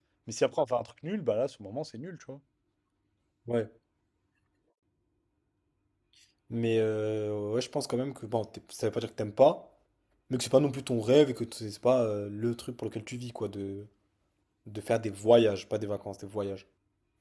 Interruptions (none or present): none